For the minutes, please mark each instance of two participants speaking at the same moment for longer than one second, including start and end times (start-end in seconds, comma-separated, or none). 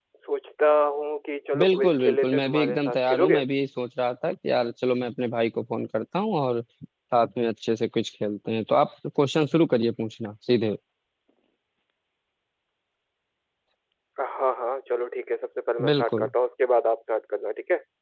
1.6-3.4